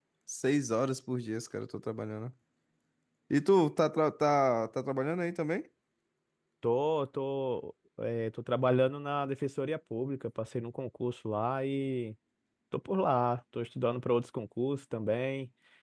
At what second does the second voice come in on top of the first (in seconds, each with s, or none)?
none